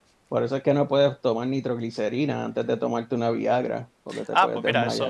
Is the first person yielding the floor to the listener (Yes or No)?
Yes